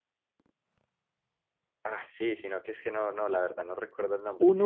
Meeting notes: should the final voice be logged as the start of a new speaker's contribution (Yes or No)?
No